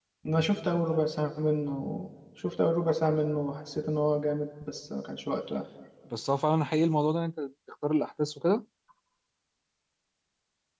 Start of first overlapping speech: none

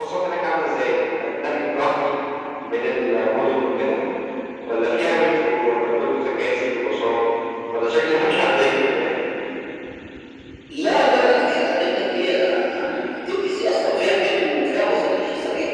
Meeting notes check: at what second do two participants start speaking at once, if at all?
none

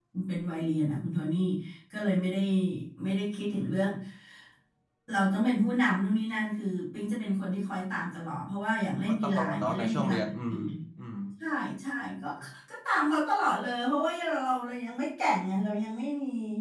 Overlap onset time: 9.1 s

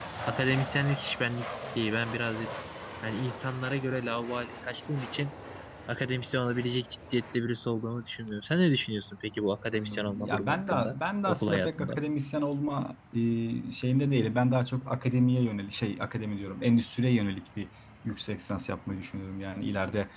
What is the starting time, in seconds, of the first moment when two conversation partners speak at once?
9.7 s

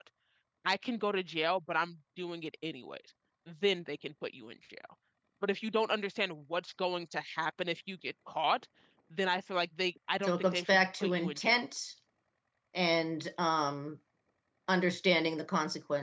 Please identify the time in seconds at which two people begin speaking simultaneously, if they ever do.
10.2 s

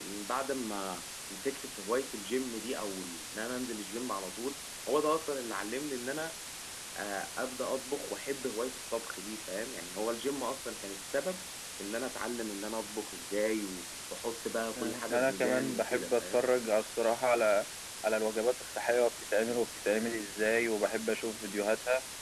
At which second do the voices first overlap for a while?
14.8 s

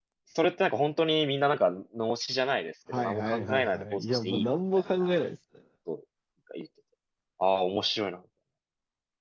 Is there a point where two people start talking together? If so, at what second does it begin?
2.9 s

